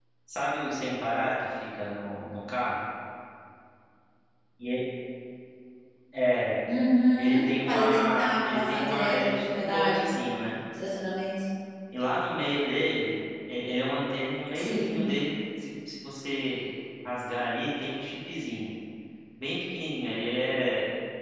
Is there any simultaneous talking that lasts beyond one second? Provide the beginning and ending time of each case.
7.2-10.1

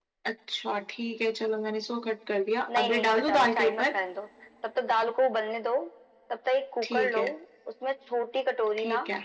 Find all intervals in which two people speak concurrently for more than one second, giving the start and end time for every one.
2.7-4.0

